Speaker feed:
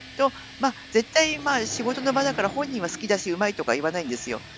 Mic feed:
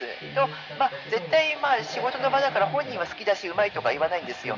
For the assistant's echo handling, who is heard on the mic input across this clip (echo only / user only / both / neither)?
both